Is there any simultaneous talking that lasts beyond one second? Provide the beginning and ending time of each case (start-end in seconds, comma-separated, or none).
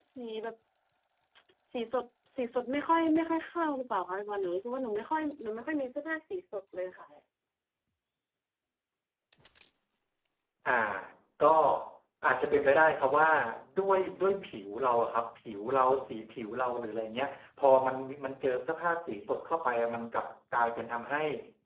none